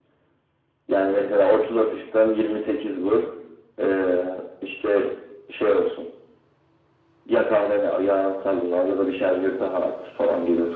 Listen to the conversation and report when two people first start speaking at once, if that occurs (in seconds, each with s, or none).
none